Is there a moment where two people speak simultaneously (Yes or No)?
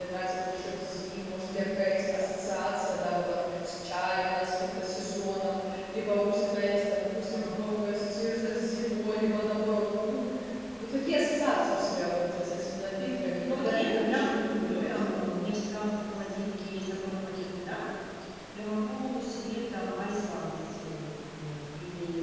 Yes